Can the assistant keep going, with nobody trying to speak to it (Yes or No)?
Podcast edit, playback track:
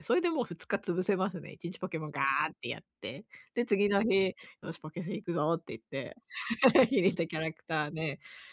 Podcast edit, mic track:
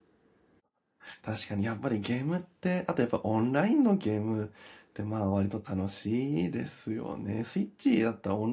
No